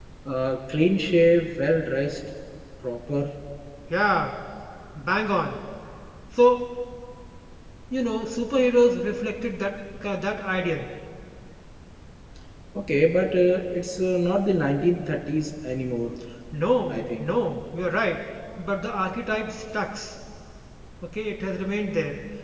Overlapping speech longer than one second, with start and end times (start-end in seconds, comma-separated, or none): none